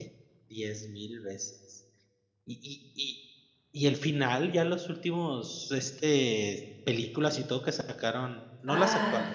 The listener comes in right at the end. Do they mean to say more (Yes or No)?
No